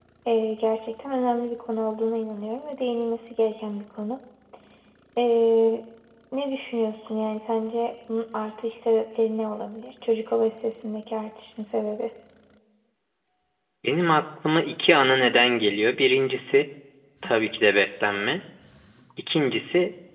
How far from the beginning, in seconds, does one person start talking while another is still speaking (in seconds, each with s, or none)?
none